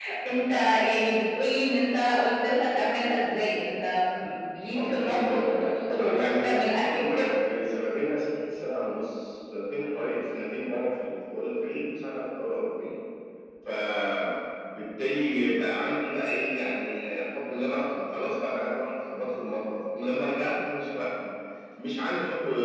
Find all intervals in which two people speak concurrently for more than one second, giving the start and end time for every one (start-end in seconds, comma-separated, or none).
4.8-7.4